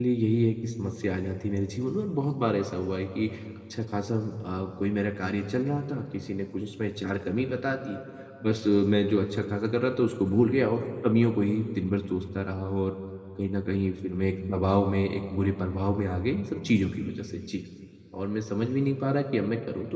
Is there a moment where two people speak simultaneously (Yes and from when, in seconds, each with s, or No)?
No